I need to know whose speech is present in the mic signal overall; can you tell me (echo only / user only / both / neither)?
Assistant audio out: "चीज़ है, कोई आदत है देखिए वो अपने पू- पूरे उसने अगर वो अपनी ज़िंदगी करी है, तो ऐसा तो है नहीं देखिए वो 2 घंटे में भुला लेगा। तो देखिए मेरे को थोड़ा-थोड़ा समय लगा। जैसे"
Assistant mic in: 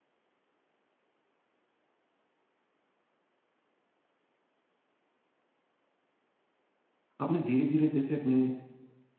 user only